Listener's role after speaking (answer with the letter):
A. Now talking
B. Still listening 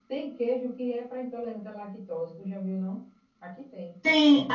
A